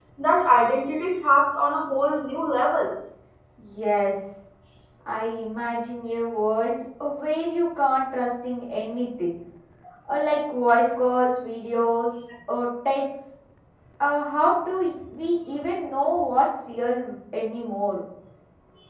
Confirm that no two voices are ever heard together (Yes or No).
Yes